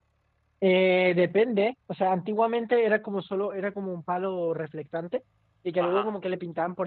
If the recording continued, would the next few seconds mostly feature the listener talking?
No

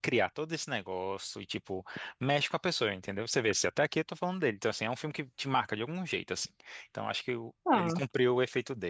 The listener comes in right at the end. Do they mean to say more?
No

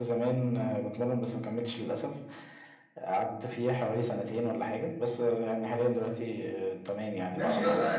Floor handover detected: Yes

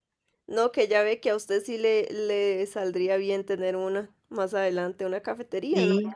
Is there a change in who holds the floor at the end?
No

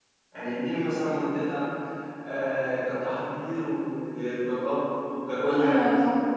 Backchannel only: No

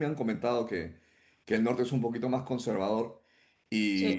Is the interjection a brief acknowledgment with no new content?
Yes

